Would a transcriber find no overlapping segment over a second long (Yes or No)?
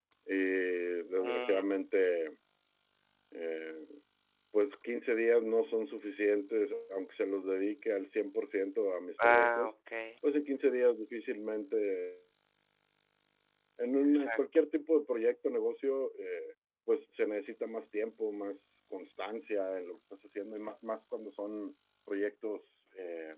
Yes